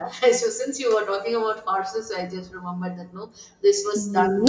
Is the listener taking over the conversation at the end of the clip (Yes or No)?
Yes